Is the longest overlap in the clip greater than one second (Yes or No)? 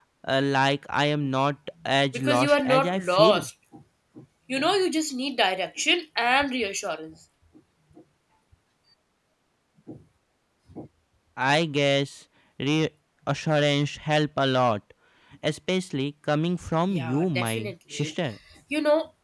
Yes